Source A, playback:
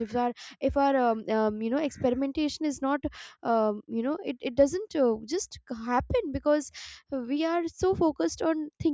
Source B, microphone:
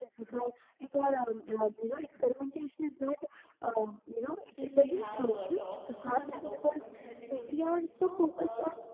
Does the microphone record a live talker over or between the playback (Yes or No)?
Yes